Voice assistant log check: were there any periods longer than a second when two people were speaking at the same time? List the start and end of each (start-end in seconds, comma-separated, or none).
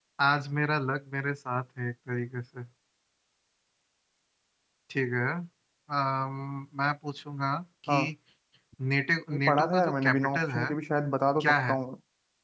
9.3-10.6